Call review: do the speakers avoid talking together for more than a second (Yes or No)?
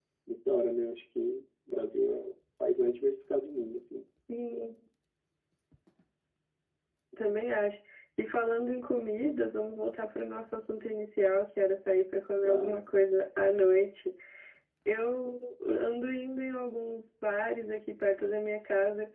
Yes